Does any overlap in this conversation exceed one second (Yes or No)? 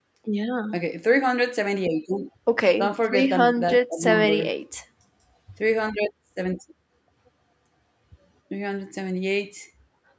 Yes